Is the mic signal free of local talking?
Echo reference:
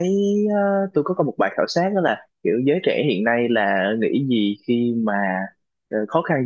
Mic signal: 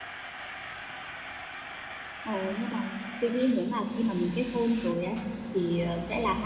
No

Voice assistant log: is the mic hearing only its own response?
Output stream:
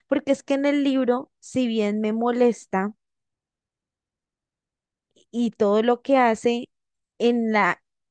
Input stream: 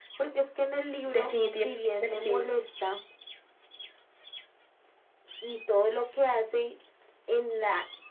No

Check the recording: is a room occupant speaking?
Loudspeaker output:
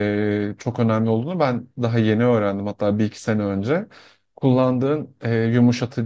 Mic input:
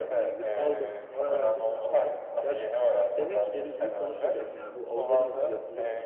Yes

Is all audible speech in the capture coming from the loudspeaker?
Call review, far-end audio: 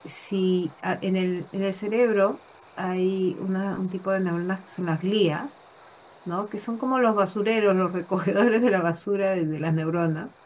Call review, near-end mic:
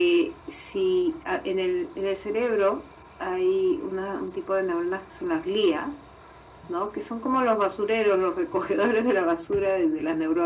Yes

